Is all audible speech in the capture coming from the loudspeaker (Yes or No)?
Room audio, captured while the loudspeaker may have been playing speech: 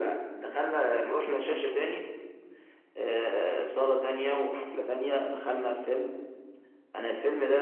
Yes